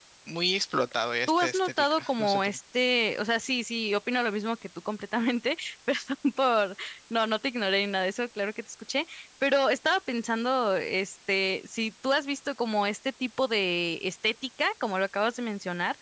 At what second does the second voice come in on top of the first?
1.3 s

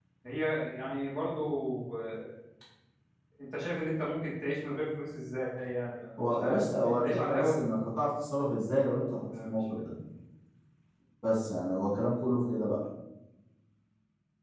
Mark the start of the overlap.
6.2 s

